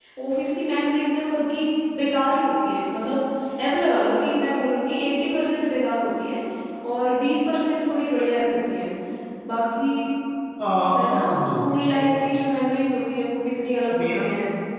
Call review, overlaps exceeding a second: present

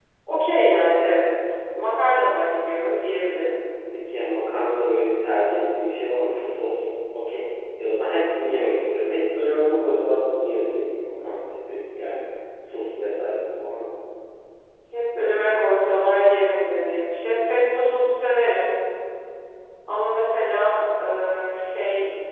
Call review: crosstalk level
none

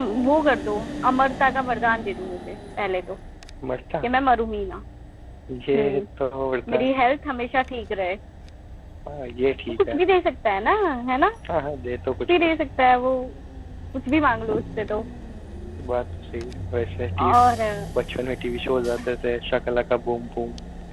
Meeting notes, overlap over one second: none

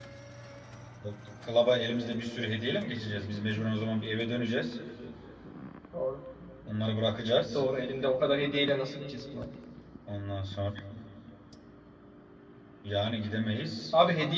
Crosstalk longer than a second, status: none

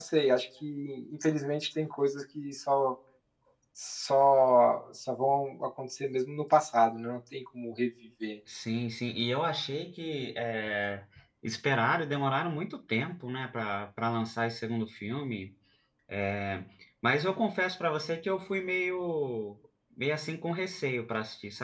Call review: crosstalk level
none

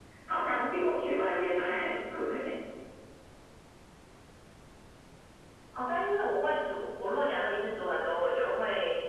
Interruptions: none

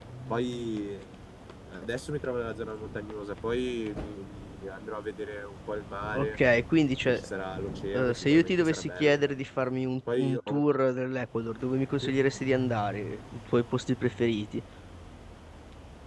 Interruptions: present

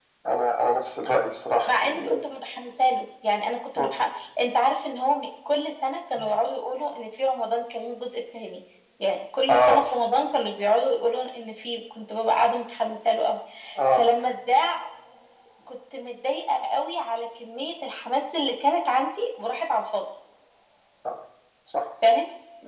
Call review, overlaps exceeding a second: none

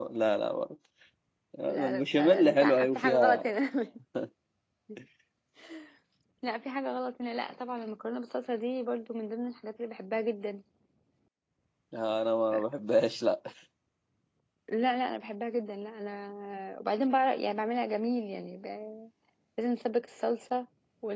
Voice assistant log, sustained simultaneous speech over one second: present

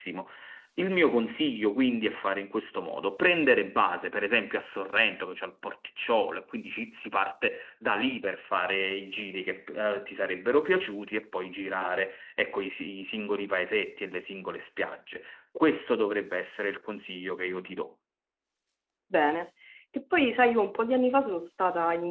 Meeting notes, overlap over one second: none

